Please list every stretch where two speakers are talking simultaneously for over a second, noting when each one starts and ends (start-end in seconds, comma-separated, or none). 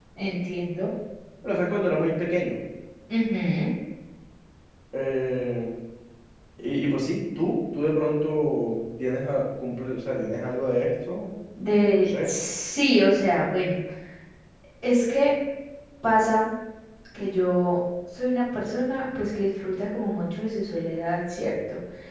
none